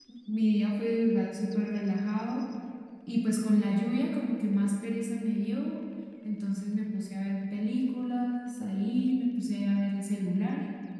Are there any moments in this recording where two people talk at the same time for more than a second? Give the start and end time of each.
none

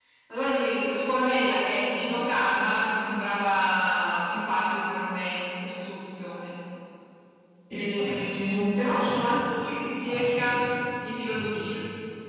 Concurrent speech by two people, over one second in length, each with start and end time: 7.7-9.3

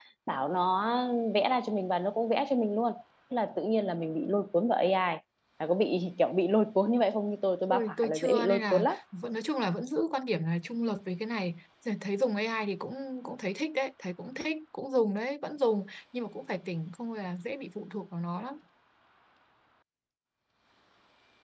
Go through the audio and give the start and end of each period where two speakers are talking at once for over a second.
7.7-9.0

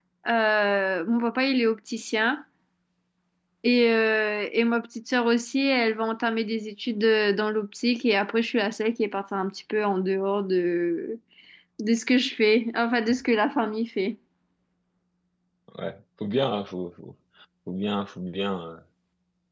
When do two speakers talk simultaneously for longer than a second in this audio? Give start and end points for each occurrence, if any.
none

